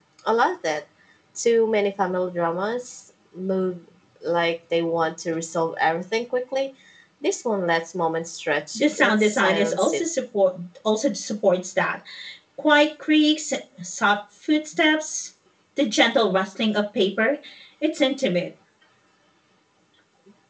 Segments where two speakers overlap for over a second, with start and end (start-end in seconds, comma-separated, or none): 8.8-10.0